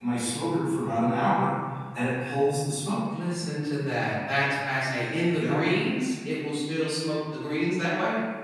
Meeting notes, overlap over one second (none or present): none